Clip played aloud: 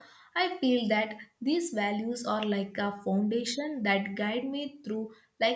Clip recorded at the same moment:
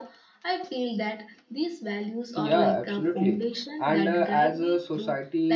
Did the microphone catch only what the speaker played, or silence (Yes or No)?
No